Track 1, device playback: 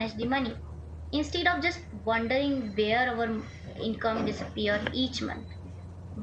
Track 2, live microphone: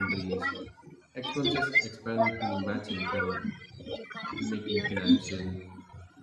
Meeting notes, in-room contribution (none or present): present